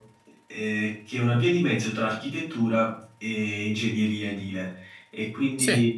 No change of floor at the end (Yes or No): Yes